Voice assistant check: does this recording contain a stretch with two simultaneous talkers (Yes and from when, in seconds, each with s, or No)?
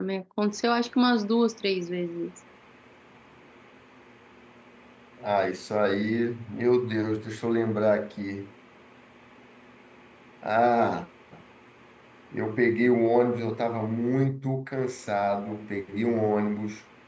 No